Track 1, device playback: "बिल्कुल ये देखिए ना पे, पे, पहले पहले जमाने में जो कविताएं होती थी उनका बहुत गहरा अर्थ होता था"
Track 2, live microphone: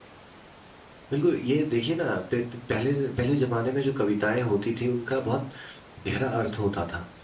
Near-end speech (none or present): none